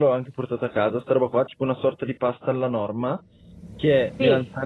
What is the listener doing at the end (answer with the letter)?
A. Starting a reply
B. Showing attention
B